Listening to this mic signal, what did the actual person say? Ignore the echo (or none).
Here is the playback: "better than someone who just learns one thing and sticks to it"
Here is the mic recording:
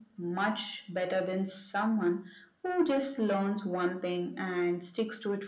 none